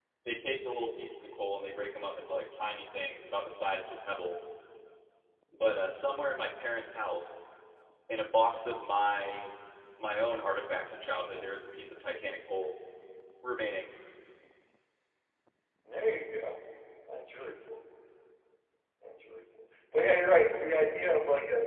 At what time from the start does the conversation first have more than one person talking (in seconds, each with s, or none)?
none